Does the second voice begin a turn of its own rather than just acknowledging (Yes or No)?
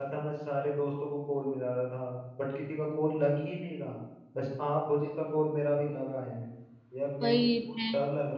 No